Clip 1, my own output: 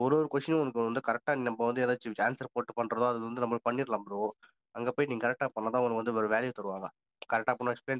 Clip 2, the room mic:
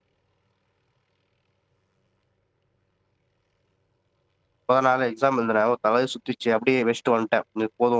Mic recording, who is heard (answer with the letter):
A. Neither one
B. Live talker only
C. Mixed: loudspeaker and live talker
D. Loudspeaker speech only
B